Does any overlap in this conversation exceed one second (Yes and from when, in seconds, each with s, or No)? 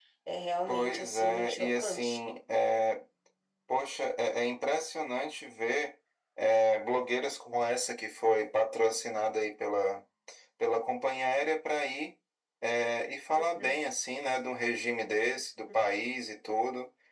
Yes, from 0.7 s